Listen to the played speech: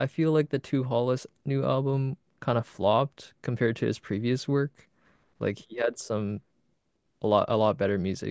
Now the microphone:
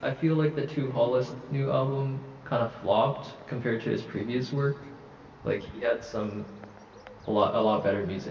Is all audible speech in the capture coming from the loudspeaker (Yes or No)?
Yes